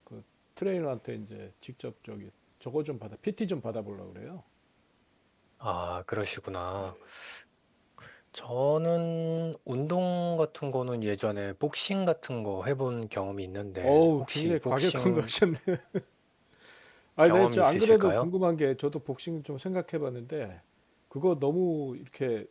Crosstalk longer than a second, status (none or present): present